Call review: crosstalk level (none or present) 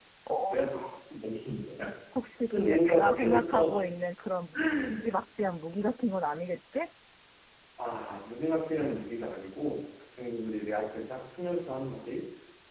present